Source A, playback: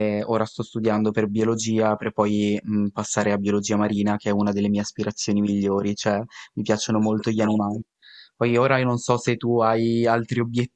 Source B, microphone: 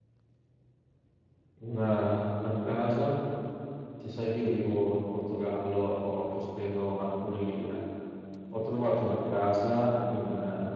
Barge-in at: 1.5 s

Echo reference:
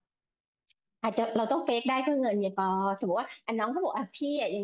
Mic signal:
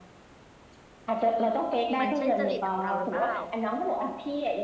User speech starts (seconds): 2.0 s

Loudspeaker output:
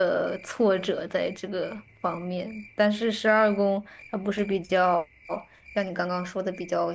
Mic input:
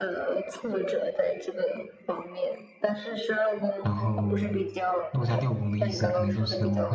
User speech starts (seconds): 3.8 s

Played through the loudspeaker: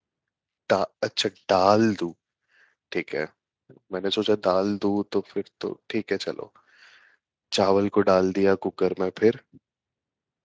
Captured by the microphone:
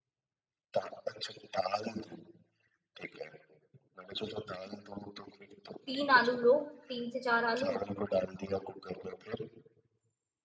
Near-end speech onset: 5.9 s

